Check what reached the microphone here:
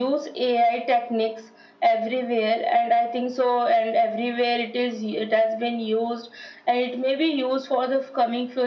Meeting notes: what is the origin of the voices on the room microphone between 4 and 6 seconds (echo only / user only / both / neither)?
echo only